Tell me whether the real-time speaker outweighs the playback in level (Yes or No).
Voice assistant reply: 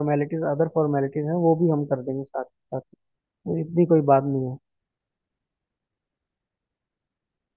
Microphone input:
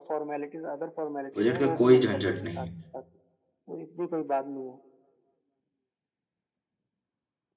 Yes